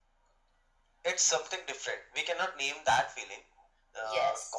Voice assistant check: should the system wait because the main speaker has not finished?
Yes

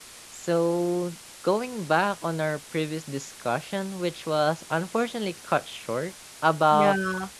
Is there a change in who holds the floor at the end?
No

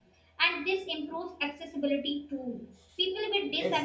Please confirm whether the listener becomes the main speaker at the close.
No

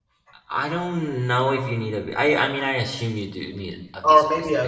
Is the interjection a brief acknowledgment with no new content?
No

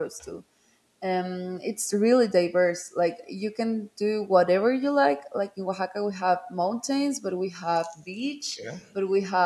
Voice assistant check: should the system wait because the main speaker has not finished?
Yes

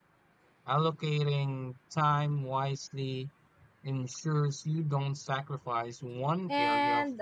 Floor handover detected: Yes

